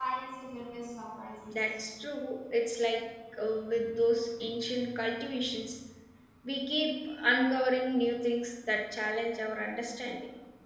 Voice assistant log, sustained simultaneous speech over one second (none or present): none